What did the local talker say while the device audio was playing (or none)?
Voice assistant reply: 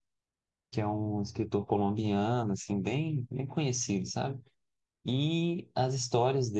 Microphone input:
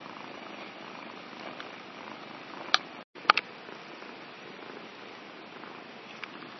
none